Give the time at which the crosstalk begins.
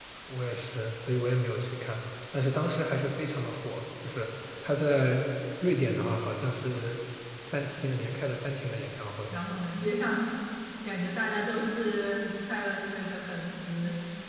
none

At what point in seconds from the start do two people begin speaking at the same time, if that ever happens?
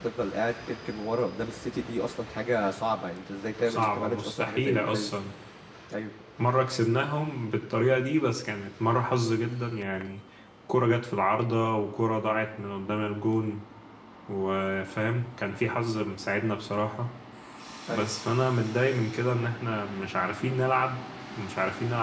3.7 s

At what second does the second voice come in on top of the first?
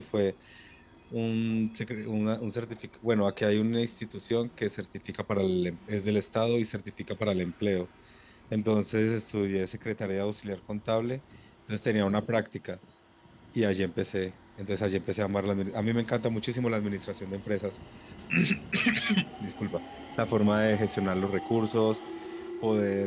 none

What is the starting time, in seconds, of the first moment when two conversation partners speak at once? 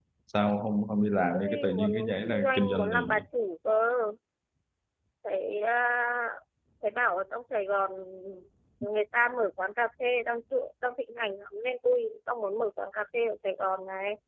1.3 s

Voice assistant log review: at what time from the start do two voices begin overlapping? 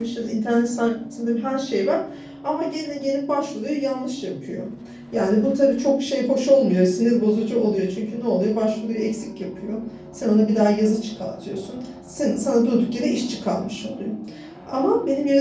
none

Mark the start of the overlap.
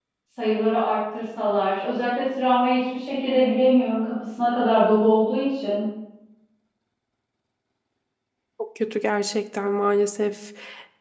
none

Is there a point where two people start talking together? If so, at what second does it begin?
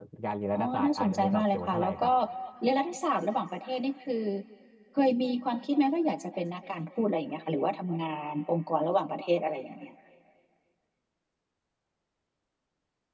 0.5 s

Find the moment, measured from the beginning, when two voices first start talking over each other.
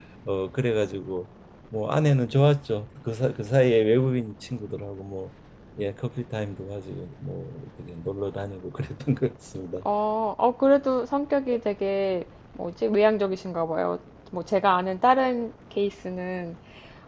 none

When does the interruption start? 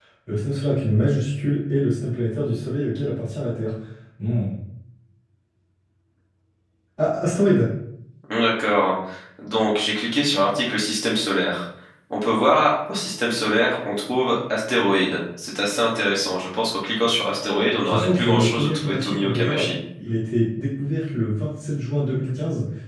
17.8 s

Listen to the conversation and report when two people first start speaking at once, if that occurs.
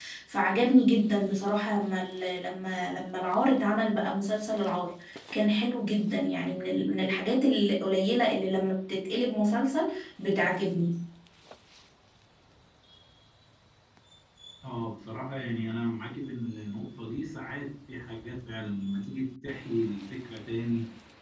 none

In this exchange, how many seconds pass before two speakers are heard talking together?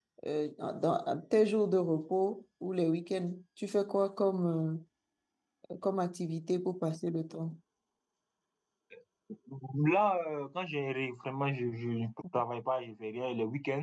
none

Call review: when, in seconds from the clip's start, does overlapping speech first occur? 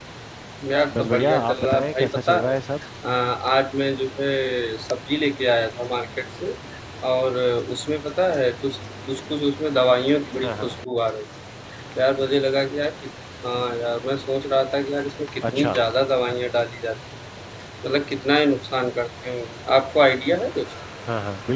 0.9 s

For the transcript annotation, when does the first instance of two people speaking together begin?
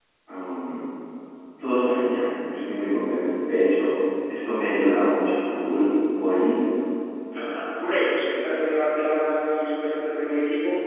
none

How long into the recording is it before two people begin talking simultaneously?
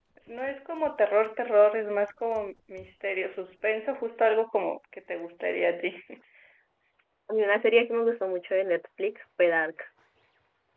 none

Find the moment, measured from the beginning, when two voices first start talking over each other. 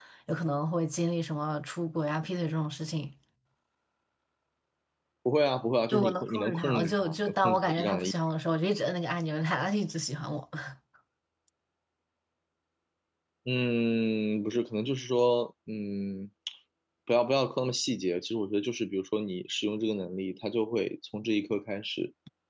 5.9 s

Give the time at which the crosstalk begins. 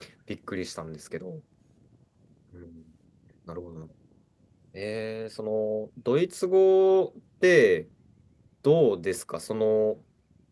none

